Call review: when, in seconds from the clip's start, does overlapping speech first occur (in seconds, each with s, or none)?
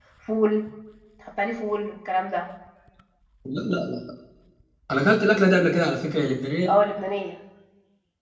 none